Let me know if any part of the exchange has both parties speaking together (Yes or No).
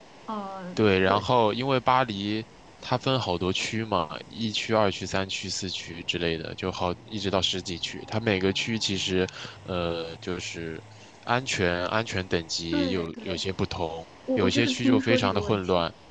Yes